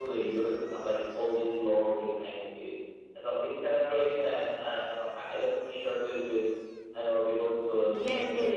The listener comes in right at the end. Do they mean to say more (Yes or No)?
Yes